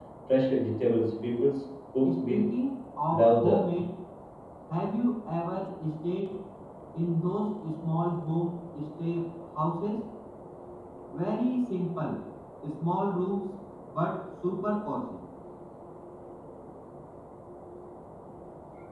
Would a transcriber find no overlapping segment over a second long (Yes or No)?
Yes